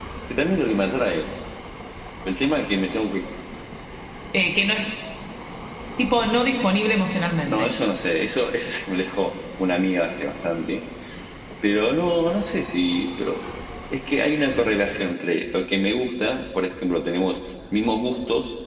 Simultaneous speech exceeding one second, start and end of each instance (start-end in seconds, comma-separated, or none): none